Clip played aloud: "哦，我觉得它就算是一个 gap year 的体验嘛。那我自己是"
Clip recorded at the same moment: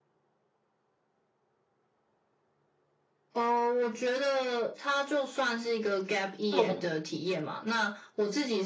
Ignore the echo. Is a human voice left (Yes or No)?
Yes